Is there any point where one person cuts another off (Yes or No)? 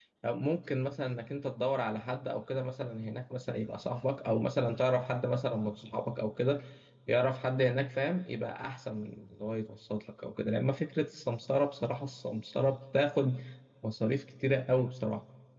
No